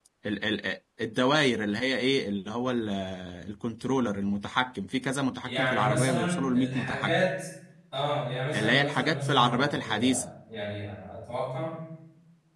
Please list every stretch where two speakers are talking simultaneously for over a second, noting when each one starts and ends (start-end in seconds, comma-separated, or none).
5.4-7.2, 8.6-10.2